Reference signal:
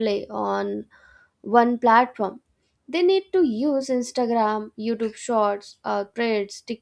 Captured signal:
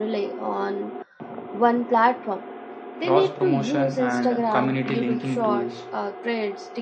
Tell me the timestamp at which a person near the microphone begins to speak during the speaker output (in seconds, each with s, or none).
3.0 s